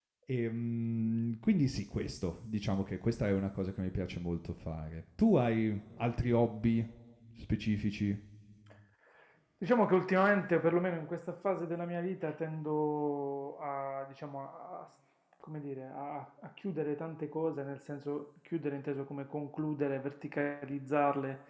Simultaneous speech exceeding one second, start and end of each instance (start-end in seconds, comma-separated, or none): none